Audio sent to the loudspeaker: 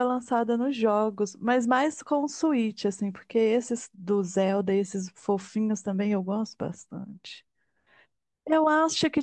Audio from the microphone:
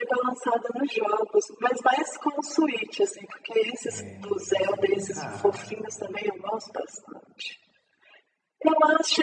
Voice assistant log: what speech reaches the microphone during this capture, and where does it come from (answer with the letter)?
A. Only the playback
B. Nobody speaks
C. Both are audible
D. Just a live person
C